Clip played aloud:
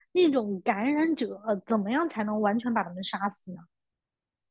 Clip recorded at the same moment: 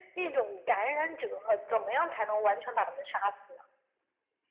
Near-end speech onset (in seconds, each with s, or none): none